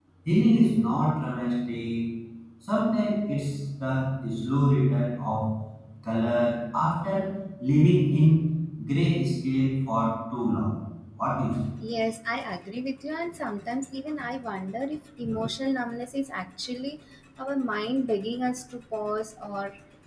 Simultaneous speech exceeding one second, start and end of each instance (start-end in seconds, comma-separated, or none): none